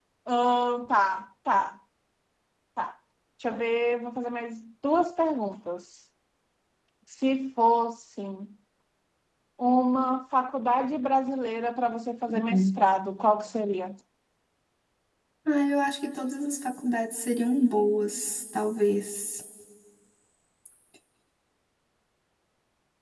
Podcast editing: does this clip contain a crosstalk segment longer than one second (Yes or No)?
No